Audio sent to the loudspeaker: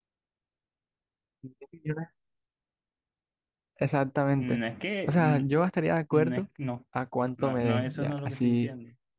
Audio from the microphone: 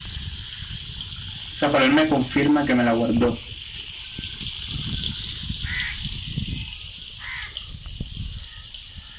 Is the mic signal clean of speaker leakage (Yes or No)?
Yes